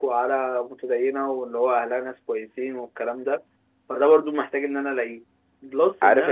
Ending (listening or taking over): taking over